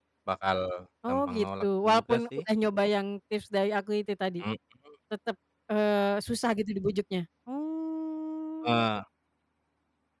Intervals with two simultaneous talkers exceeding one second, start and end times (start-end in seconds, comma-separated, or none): 1.1-2.4